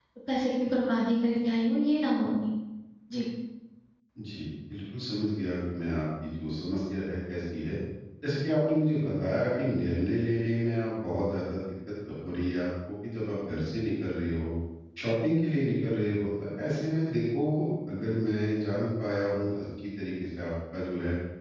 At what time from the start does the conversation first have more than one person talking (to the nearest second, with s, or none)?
none